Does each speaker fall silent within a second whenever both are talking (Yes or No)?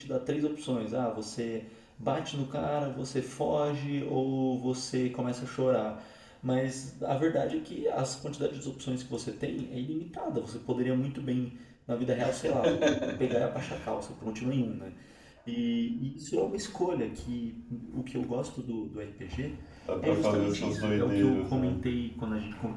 No